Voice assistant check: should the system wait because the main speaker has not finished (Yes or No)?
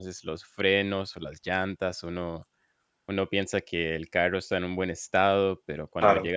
Yes